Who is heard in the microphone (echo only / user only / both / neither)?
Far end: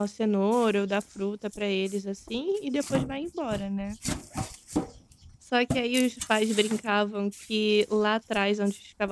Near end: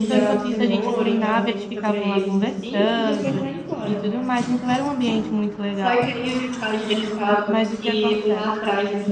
both